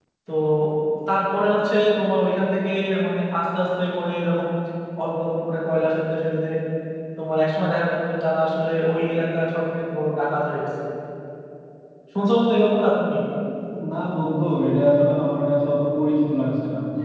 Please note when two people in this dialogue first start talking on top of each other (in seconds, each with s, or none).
none